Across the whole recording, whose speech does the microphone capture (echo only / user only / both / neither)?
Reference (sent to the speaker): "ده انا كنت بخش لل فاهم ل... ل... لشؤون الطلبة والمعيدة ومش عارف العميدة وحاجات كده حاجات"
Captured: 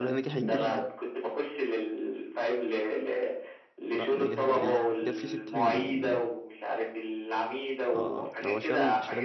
both